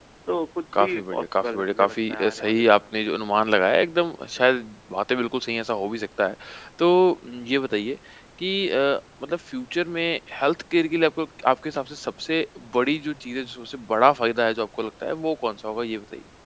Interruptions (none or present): present